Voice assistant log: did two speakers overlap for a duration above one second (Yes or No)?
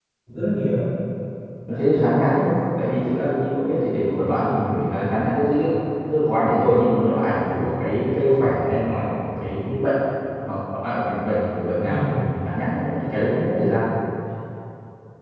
Yes